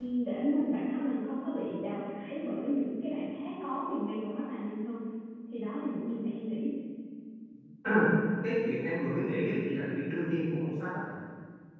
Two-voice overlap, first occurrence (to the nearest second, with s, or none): none